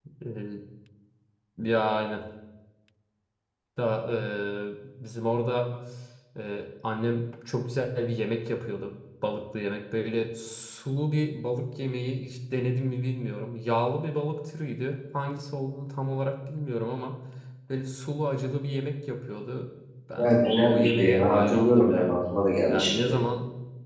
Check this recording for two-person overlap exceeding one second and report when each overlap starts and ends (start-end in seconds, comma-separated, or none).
20.1-22.2